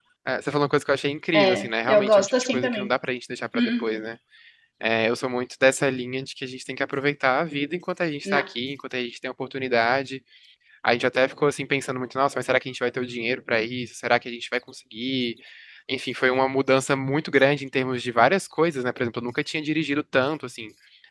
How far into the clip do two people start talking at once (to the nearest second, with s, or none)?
1 s